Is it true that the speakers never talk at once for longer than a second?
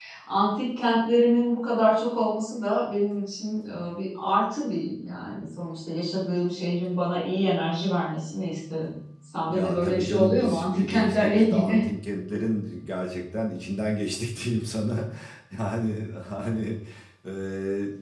No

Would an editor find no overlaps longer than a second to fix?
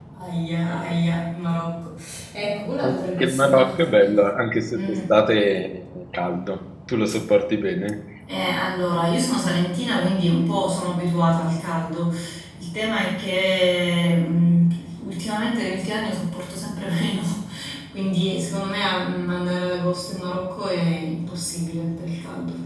No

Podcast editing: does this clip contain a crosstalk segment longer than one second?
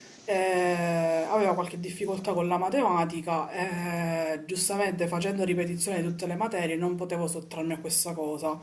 No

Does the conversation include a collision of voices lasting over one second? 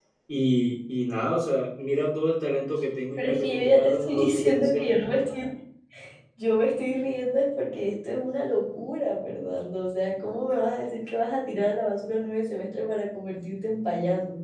Yes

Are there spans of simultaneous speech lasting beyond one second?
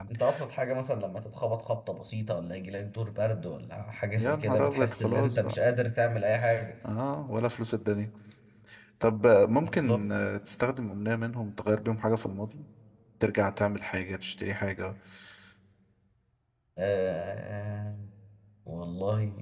Yes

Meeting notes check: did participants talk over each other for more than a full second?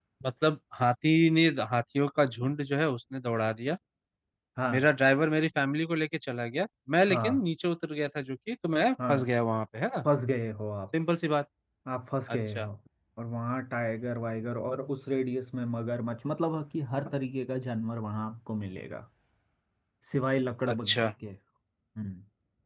No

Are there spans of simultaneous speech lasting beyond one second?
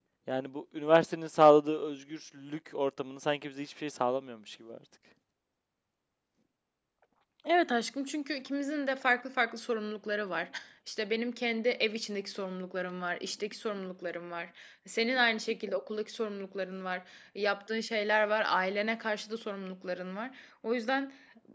No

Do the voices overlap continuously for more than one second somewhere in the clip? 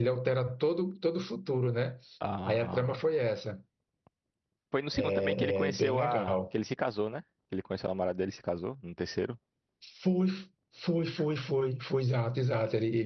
Yes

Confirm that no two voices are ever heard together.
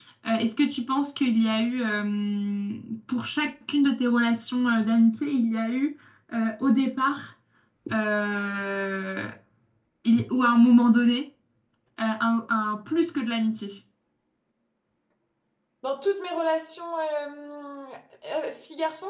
Yes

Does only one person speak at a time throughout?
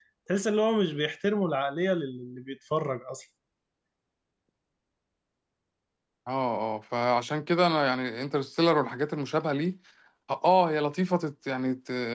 Yes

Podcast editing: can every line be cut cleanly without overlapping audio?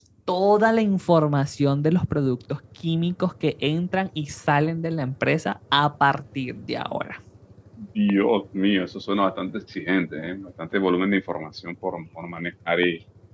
Yes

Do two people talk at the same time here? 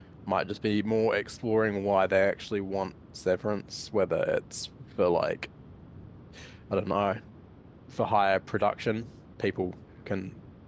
No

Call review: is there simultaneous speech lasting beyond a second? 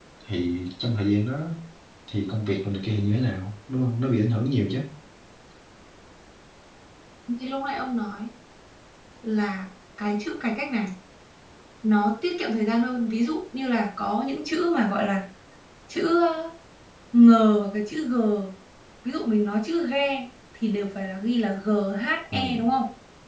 No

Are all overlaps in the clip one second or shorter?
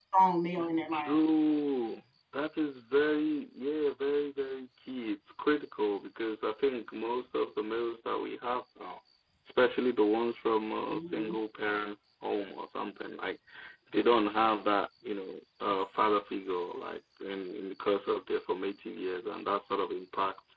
Yes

